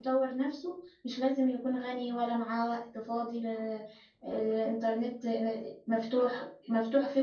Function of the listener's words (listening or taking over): listening